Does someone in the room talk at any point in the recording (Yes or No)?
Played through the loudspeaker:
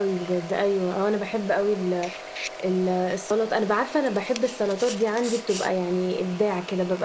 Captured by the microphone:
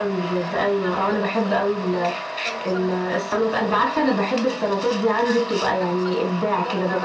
Yes